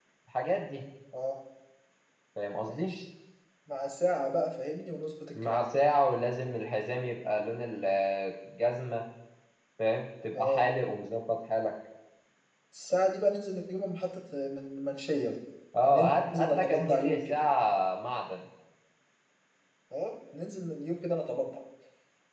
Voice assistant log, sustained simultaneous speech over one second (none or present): present